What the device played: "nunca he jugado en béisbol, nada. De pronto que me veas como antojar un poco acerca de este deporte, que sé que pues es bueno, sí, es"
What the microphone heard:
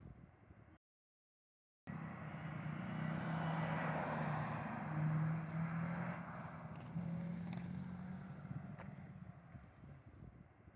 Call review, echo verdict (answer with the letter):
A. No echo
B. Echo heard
A